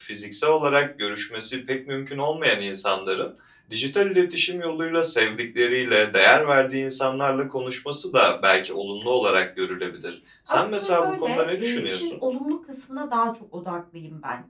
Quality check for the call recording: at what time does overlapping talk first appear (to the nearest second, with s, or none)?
10 s